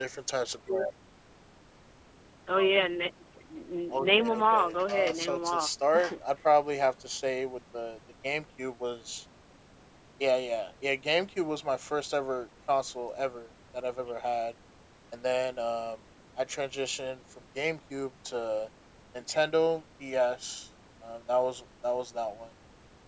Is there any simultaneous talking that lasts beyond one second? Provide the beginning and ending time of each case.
3.9-5.7

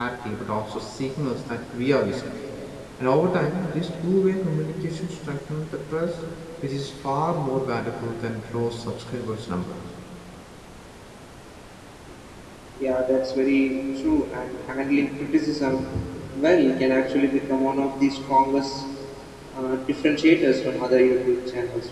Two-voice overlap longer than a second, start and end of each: none

